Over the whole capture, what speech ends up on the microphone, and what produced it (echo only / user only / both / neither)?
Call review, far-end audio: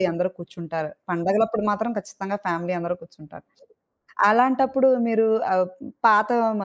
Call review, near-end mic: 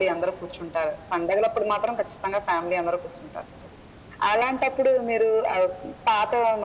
echo only